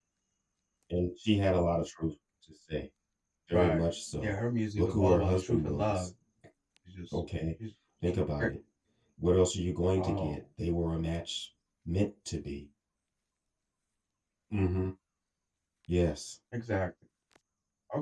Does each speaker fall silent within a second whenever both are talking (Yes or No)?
No